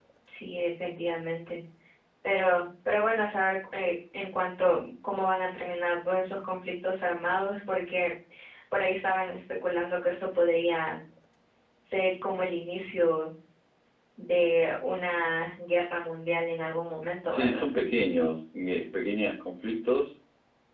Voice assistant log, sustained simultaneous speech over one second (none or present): none